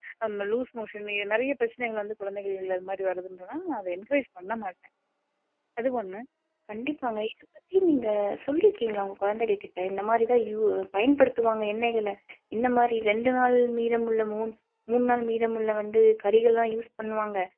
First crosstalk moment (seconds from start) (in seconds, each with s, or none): none